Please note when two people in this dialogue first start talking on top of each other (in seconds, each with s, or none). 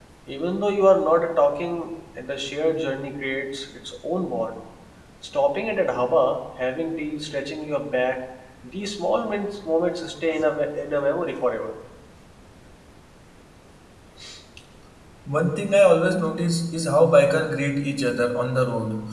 none